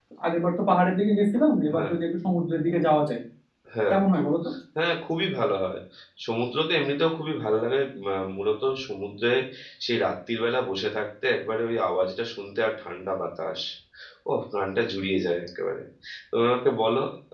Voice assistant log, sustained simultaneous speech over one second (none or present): none